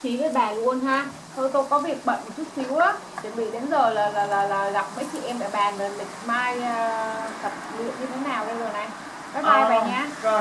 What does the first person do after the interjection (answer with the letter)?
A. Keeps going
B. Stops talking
B